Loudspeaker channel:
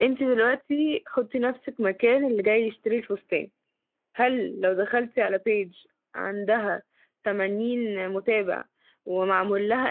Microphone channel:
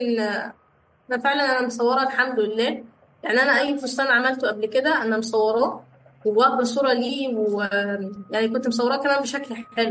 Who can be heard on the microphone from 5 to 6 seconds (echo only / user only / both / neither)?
user only